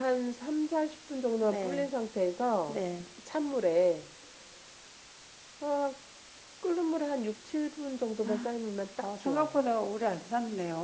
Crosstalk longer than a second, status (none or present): none